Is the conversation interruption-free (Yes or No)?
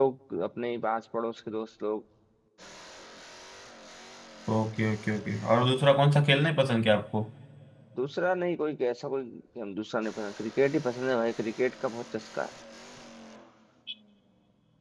Yes